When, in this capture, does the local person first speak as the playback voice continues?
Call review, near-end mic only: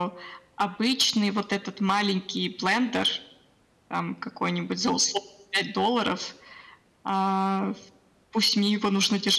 none

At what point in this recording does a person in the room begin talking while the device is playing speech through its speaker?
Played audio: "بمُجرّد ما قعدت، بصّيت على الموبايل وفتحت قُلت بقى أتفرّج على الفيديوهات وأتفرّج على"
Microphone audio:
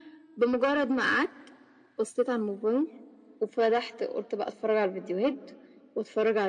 none

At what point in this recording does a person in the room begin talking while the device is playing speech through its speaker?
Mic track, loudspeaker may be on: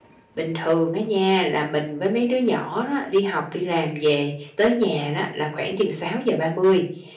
0.3 s

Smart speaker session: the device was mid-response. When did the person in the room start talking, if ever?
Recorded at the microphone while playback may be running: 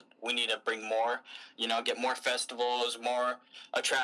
none

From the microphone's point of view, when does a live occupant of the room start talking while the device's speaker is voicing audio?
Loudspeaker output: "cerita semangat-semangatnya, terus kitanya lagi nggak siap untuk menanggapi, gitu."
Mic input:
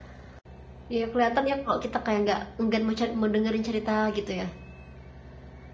0.9 s

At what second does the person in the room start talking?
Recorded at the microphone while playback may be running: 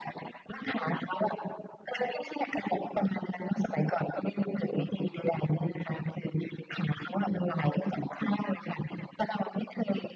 none

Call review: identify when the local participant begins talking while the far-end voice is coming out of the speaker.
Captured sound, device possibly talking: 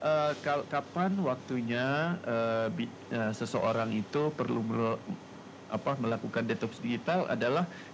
none

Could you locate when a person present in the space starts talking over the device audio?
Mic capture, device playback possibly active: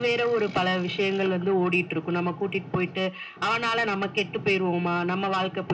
none

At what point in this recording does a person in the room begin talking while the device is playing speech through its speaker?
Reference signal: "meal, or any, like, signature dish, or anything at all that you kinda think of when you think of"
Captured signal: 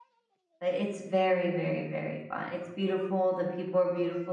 0.6 s

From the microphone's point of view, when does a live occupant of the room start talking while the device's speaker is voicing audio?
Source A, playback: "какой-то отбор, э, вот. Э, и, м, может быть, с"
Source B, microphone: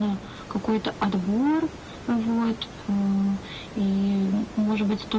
none

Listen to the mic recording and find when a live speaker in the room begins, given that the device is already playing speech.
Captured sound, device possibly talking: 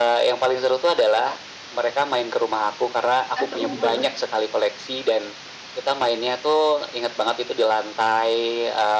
3.3 s

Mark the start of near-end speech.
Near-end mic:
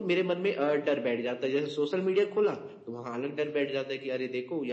none

